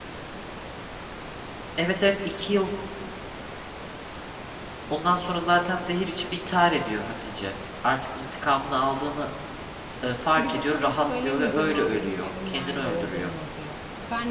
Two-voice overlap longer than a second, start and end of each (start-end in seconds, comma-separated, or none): 10.4-13.3